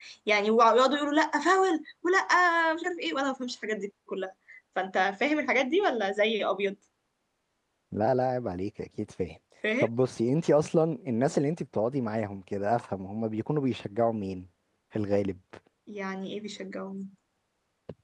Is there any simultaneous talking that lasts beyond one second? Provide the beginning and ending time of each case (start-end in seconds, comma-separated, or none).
none